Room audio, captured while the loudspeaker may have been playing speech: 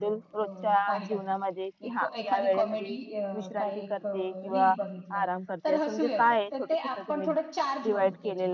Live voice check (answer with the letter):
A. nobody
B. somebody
B